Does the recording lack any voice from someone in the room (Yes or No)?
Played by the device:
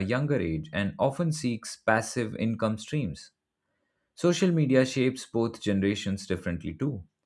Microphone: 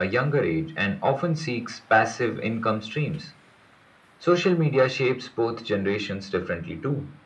Yes